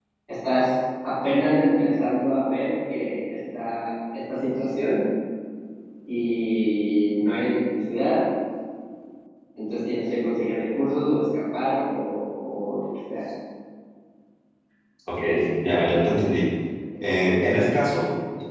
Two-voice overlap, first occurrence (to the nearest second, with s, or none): none